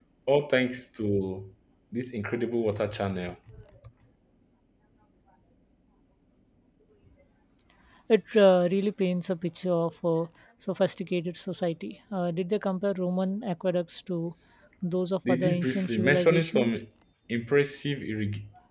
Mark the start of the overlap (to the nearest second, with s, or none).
15 s